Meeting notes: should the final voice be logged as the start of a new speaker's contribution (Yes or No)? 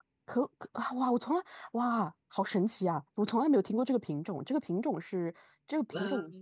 No